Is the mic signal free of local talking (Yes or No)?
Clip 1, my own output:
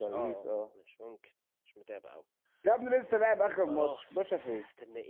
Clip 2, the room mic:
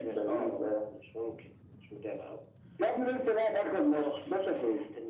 Yes